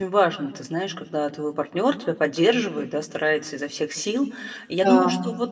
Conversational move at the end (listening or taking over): listening